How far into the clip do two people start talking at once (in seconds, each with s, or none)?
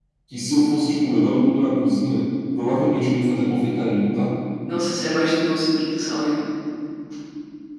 none